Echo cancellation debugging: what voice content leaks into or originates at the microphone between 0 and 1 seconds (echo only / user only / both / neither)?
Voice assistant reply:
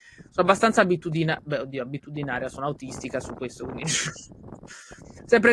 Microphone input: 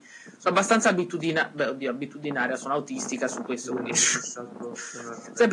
echo only